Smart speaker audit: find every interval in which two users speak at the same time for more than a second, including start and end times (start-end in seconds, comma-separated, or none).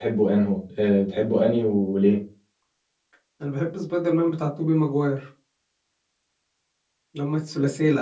none